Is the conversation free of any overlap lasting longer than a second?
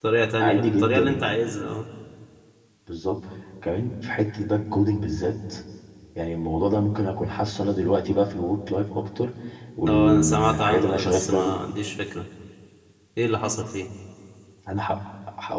No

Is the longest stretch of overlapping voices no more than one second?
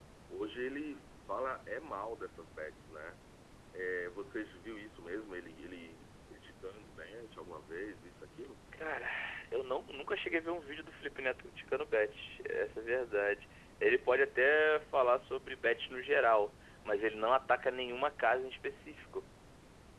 Yes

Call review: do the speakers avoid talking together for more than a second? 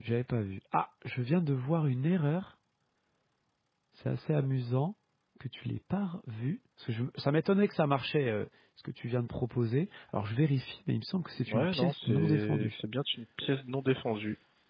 No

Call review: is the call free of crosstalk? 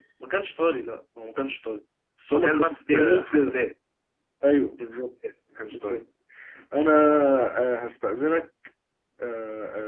No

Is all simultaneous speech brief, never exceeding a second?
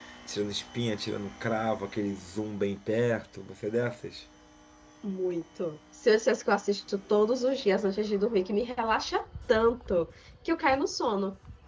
Yes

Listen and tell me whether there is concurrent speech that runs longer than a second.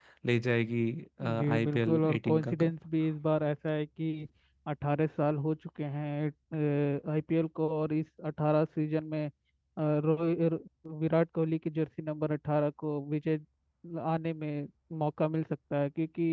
Yes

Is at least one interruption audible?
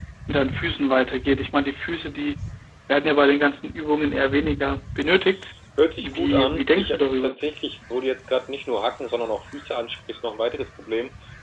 Yes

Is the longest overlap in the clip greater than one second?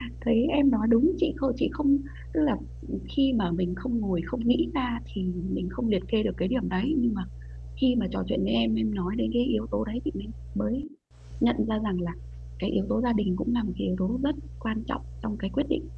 No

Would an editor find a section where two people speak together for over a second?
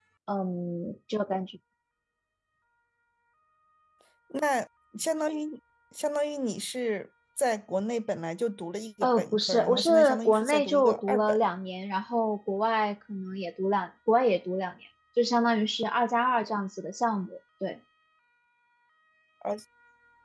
Yes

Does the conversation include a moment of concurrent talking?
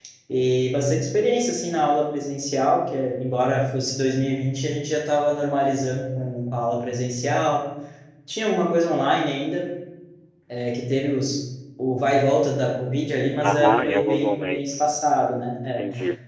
Yes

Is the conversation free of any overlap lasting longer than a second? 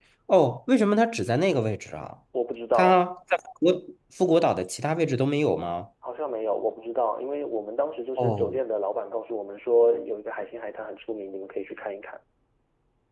Yes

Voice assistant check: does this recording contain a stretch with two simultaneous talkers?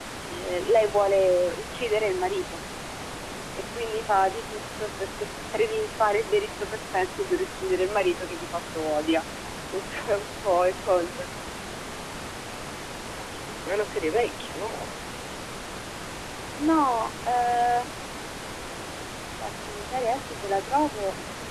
No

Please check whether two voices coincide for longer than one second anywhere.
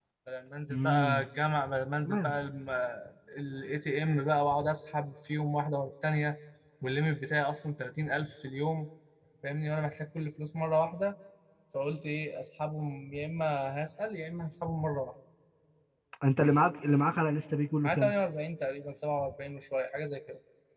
No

